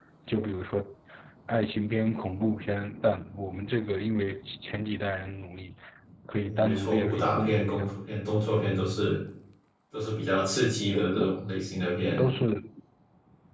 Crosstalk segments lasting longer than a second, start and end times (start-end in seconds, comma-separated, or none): 6.4-8.0